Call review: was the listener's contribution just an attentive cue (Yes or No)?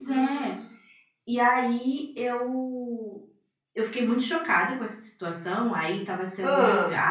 Yes